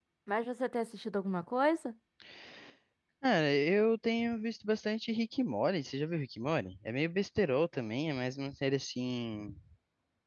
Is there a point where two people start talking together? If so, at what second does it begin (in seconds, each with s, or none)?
none